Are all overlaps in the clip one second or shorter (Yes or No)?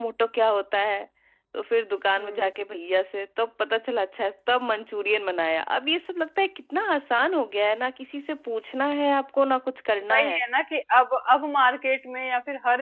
Yes